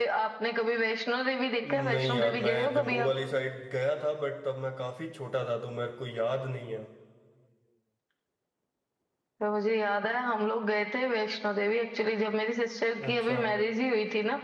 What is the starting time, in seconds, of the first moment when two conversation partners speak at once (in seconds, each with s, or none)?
1.9 s